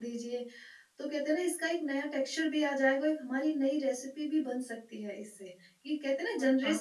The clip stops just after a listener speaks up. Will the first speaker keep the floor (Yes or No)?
No